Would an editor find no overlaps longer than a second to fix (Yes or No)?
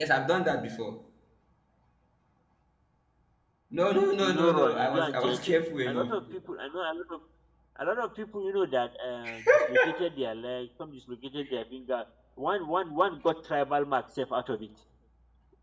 No